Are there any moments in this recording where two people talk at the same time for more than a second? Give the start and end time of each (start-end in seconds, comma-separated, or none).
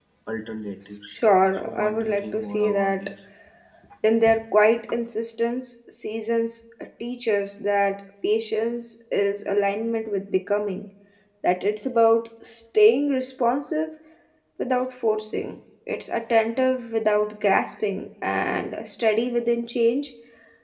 1.6-3.1